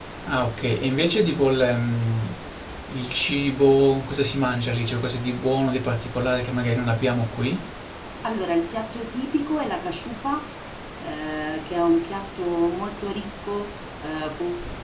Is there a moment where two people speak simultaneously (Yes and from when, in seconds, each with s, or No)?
No